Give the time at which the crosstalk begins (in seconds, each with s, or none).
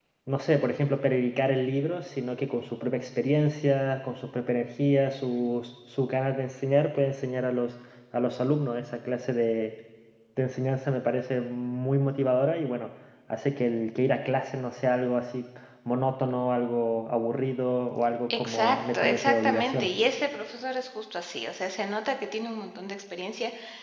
18.3 s